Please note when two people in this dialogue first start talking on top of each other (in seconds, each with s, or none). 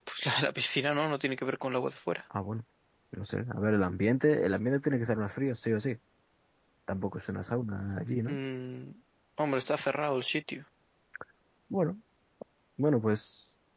none